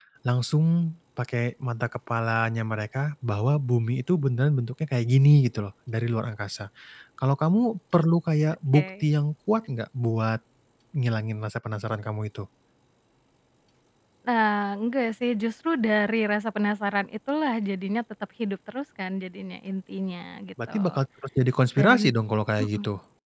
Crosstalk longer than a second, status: none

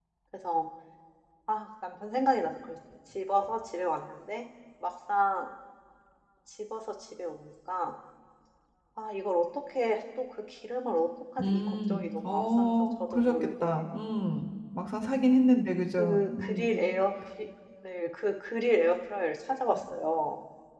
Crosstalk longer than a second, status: present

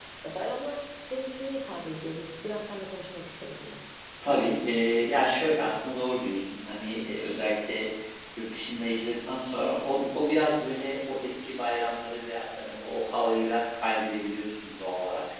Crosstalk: none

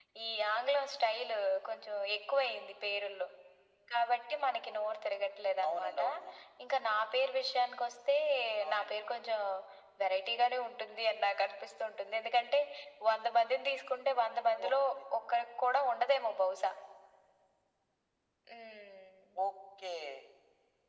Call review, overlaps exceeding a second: none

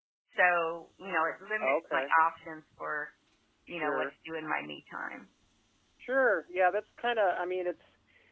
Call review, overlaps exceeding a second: none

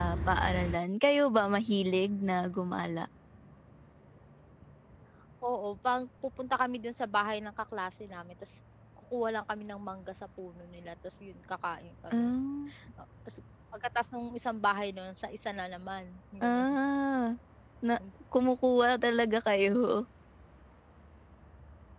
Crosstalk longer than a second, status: none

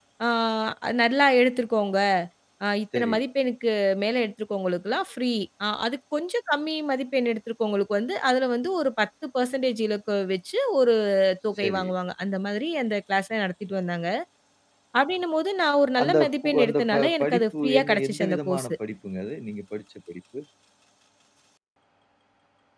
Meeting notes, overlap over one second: present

